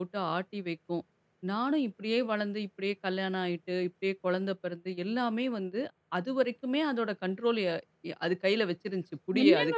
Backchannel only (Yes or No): No